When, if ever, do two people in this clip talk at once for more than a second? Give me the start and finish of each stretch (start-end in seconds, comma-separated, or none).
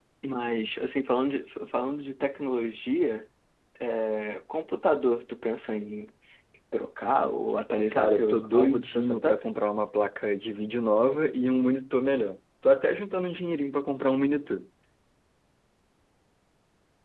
7.9-9.4